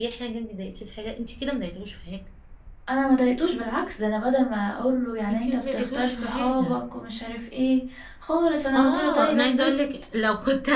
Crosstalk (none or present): present